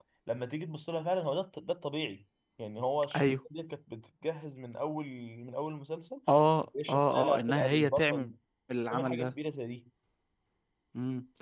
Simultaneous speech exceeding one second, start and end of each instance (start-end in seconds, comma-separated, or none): 6.9-8.3